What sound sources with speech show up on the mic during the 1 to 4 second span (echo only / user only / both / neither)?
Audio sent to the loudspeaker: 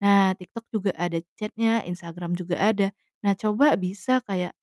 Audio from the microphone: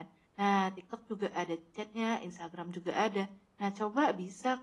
echo only